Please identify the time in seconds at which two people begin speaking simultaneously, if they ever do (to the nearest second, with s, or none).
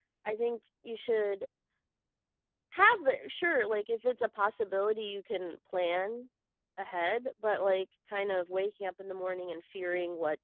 none